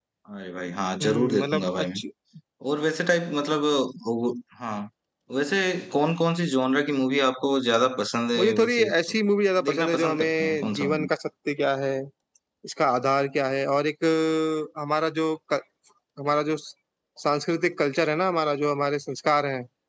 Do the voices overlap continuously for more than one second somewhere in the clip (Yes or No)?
Yes